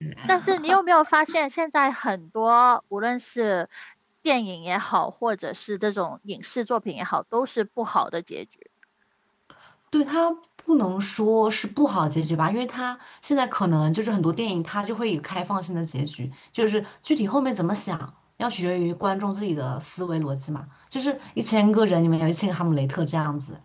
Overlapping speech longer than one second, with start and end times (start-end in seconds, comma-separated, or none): none